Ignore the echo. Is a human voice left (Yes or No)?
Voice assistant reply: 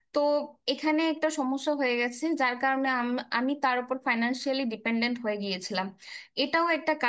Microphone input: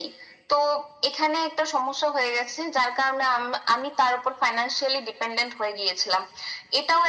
No